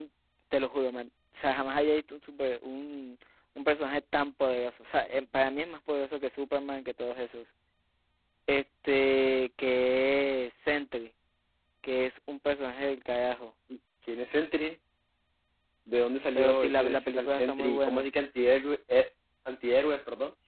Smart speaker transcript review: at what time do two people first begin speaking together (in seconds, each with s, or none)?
16.4 s